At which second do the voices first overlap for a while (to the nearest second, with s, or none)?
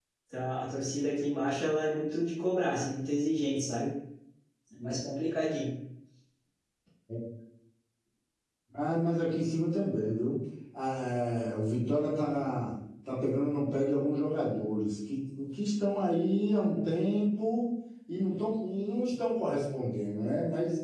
none